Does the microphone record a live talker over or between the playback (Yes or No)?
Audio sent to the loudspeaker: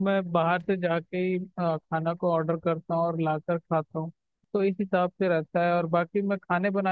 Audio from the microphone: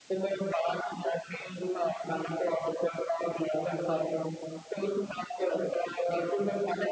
No